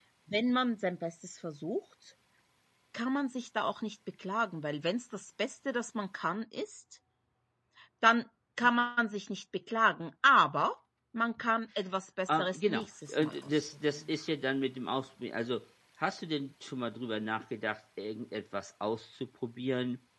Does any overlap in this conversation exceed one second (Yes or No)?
Yes